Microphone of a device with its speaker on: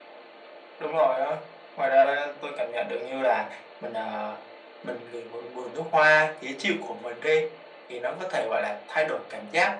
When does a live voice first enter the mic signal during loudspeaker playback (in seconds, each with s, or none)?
none